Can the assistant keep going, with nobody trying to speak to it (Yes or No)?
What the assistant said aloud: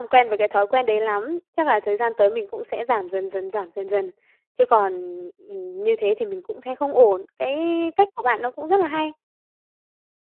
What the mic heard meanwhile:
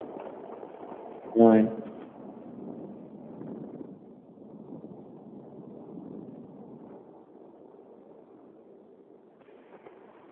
No